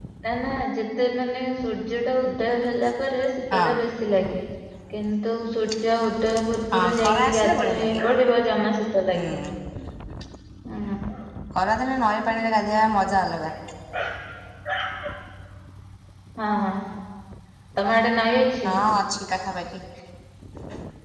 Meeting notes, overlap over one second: present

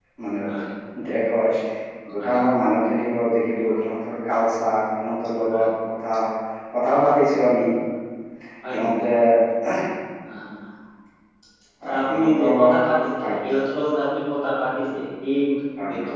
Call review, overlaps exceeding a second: present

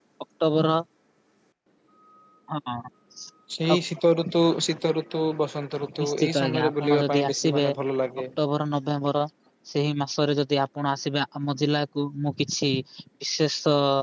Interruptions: present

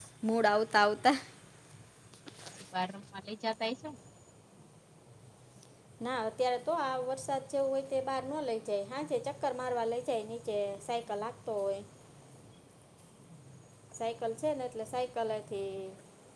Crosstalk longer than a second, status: none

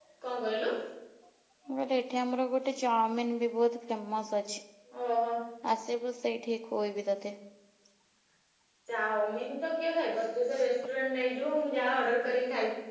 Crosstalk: none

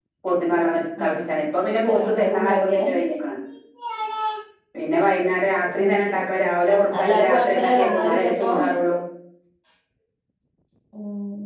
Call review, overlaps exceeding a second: present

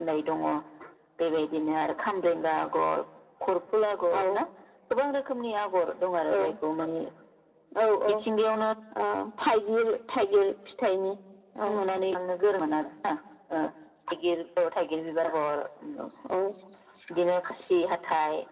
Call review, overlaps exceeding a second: none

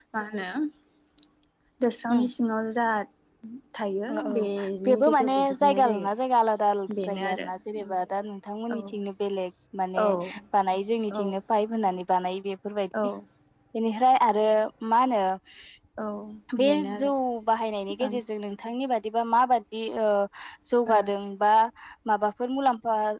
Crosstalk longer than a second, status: present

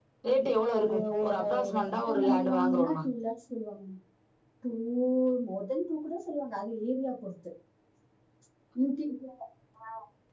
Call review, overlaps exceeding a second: present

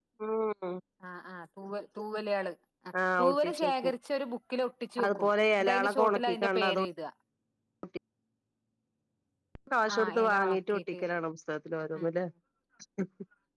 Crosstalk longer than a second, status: present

